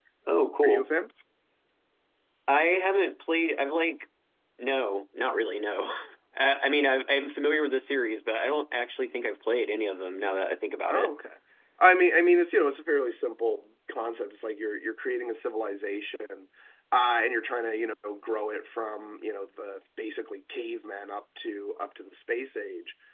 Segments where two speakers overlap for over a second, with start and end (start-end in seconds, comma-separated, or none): none